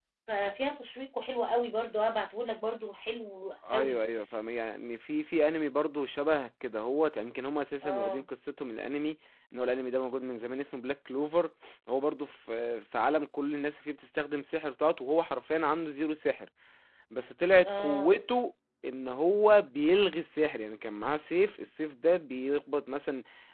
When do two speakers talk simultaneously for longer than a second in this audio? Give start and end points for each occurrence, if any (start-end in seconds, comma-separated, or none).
none